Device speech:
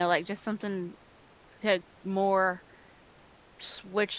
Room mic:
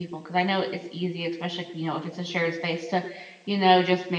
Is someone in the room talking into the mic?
Yes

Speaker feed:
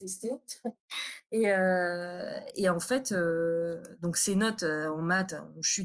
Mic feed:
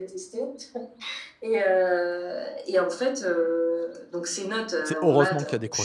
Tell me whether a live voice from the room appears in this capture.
Yes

